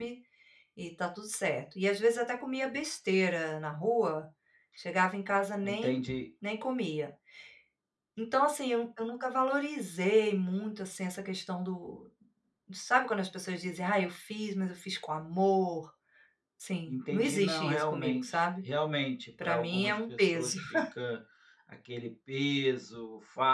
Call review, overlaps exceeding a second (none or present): present